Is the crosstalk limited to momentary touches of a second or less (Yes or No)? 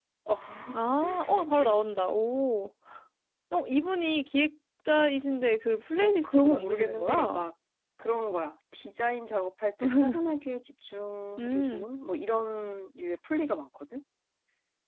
No